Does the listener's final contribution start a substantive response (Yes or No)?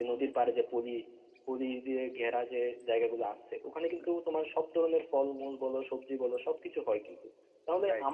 No